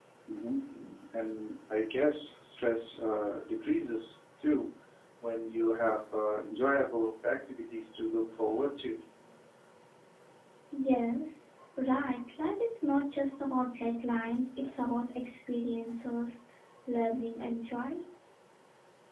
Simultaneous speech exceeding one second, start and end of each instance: none

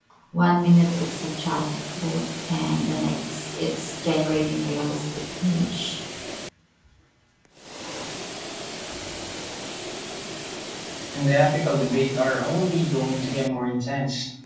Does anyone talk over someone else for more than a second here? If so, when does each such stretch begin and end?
none

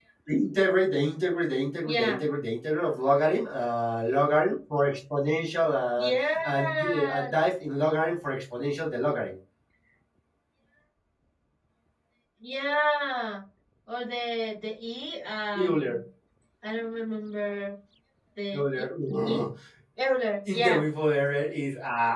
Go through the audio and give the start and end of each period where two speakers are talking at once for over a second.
6.0-7.3

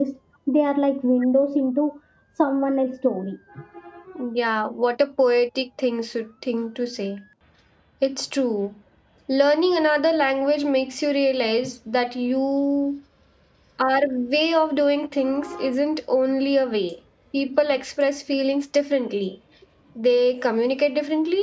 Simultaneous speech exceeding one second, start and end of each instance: none

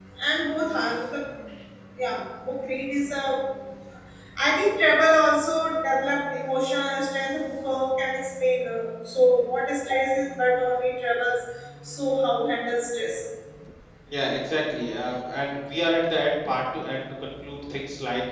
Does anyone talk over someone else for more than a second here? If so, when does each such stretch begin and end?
none

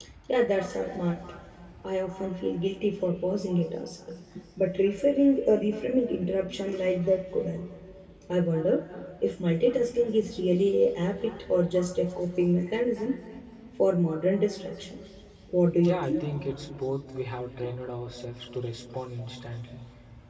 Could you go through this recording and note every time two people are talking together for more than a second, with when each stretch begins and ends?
none

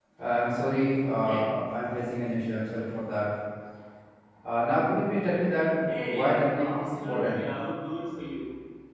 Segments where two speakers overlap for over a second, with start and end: 6.2-7.4

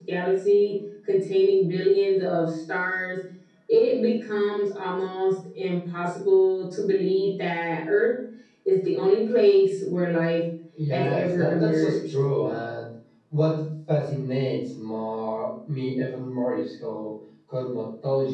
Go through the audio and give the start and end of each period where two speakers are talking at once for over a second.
10.9-12.1

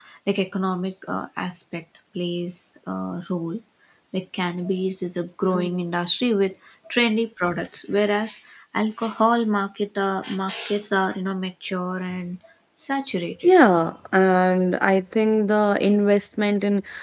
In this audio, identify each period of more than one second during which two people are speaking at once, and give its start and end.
none

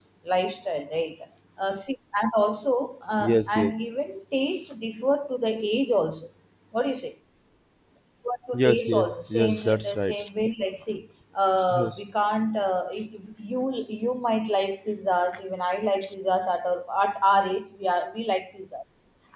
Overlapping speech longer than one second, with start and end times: 8.5-10.2

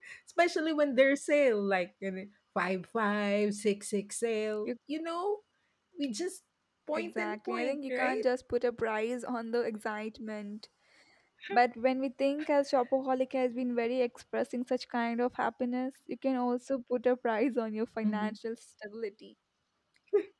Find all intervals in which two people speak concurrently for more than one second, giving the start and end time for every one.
6.9-8.2

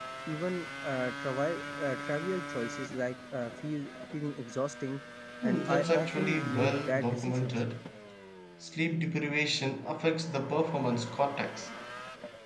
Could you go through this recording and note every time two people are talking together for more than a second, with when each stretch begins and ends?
5.4-7.6

